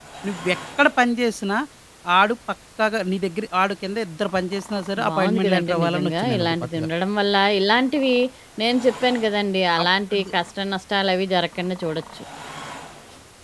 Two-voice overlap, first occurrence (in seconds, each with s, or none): 5.0 s